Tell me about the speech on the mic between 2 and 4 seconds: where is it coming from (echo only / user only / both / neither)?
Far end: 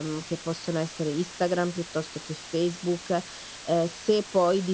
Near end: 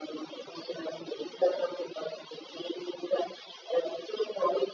echo only